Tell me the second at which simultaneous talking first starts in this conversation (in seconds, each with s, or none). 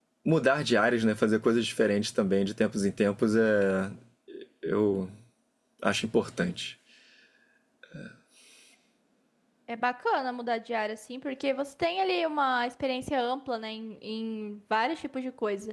none